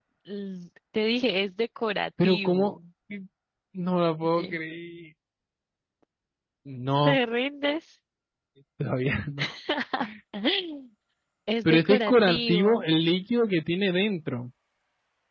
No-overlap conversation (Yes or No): No